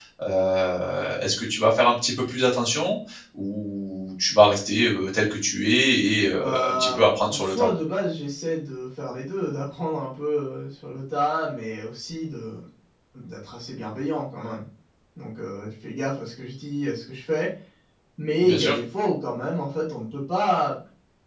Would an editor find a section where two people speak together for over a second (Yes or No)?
Yes